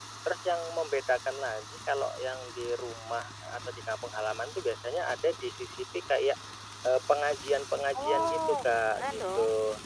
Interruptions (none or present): present